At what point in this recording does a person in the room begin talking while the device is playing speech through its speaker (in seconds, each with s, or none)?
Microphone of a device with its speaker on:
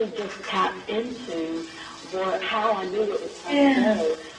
3.5 s